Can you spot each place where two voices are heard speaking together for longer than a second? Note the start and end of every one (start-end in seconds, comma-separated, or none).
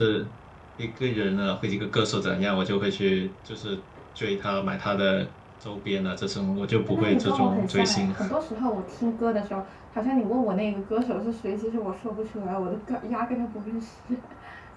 6.9-8.2